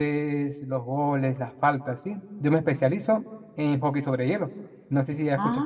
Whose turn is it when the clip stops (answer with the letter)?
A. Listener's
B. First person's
A